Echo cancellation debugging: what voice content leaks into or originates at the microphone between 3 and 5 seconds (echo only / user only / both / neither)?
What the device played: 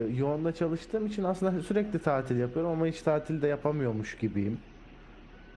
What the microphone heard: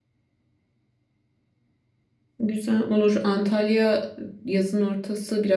user only